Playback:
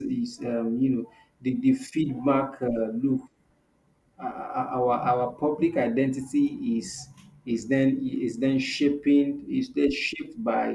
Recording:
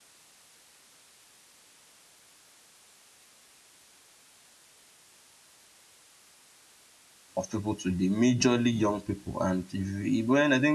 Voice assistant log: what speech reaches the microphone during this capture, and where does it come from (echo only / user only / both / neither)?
user only